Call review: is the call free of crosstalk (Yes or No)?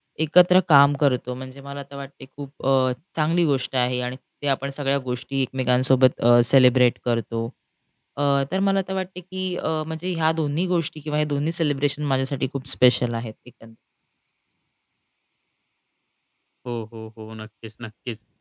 Yes